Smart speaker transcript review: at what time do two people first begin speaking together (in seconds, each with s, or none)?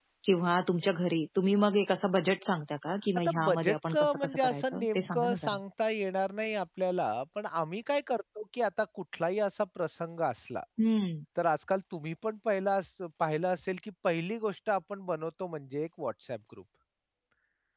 3.2 s